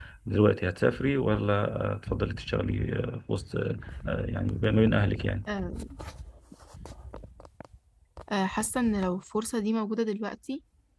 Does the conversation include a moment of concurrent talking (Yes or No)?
No